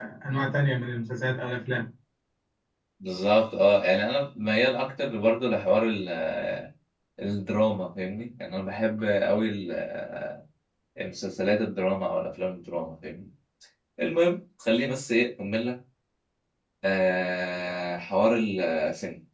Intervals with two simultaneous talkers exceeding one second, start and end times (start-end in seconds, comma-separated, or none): none